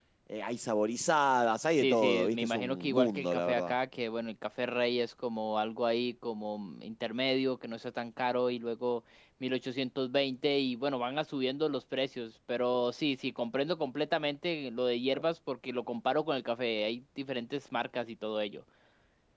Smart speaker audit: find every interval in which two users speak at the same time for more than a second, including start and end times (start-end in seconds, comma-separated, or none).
1.8-3.8